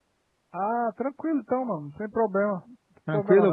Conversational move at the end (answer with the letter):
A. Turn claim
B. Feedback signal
A